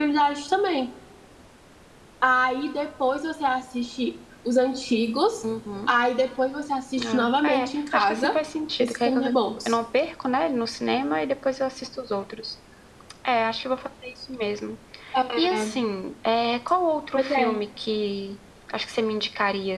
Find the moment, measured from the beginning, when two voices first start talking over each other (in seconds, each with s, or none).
7.0 s